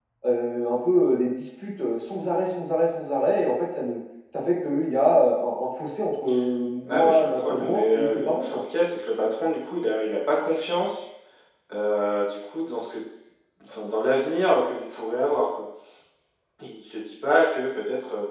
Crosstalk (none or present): present